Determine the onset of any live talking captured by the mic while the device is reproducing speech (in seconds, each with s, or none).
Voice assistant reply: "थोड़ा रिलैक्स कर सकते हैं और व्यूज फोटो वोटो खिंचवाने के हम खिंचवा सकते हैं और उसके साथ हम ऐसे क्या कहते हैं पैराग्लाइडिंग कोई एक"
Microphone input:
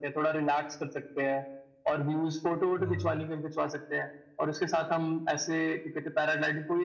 2.8 s